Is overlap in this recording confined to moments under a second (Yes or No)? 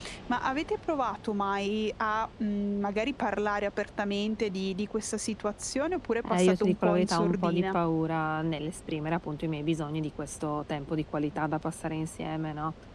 No